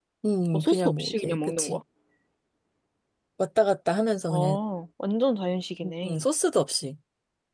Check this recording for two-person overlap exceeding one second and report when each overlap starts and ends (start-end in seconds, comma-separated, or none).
0.5-1.8